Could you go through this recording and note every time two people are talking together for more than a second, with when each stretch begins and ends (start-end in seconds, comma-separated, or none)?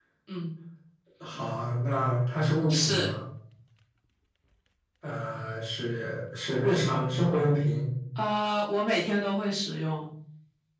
none